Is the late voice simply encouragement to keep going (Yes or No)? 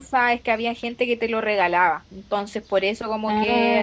Yes